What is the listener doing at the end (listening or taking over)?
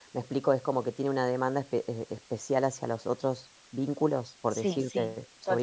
taking over